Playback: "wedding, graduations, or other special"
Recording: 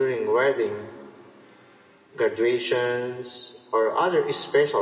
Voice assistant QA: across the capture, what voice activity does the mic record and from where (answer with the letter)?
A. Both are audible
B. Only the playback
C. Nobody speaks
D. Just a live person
B